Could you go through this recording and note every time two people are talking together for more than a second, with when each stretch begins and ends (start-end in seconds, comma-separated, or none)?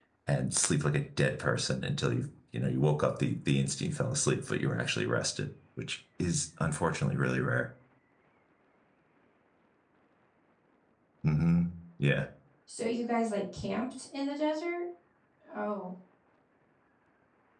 none